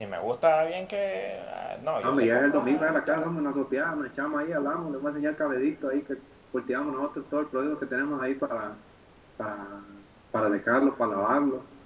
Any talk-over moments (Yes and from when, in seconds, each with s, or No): Yes, from 2.0 s